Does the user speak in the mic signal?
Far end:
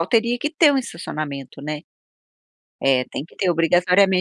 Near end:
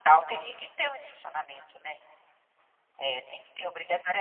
No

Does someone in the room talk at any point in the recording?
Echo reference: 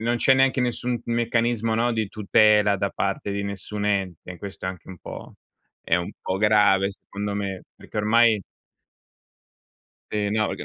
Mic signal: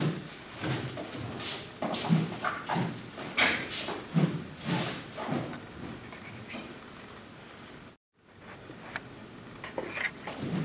No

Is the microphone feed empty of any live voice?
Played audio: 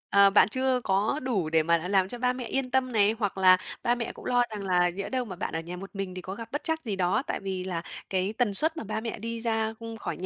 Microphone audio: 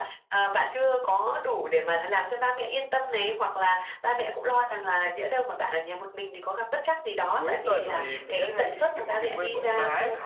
No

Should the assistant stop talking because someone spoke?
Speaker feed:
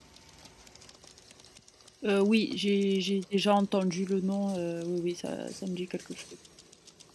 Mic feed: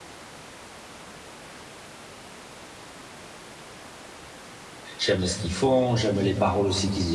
Yes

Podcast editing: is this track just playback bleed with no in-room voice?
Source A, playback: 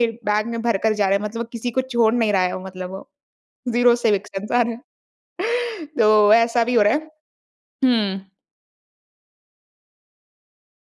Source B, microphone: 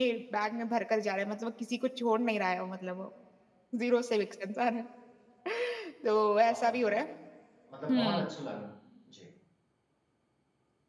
No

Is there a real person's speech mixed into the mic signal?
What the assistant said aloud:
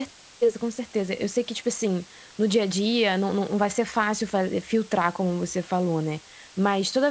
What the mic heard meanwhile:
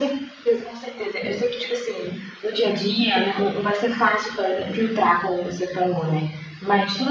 No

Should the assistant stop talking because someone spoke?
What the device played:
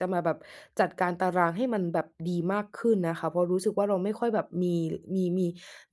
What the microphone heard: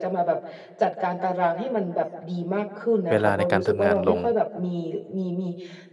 Yes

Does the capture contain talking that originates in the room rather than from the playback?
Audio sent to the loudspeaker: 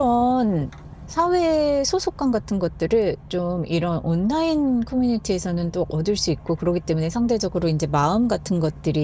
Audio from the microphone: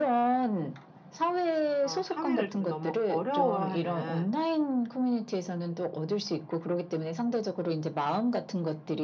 Yes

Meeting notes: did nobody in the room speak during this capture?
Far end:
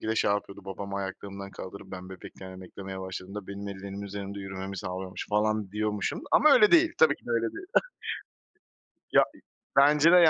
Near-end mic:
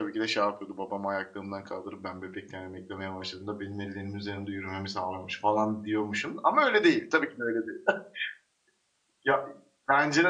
Yes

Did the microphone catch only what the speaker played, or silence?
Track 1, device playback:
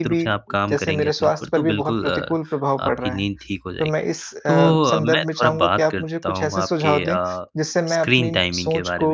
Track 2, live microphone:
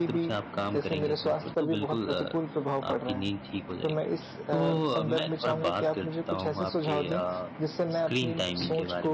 Yes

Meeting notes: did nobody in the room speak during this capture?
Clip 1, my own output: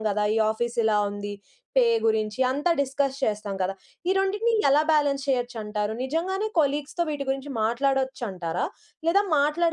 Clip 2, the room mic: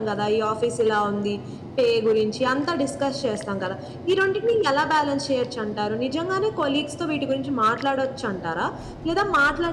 Yes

